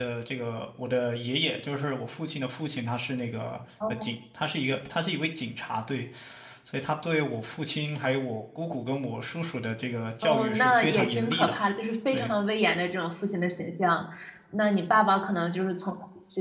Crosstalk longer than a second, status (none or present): present